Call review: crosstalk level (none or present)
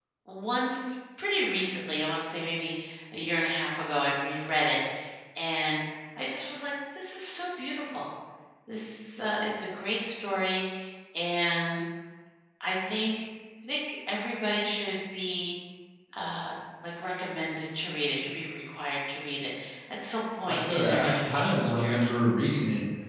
present